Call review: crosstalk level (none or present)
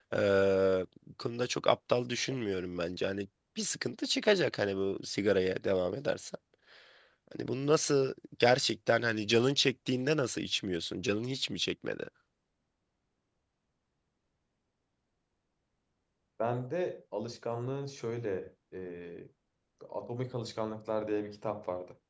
none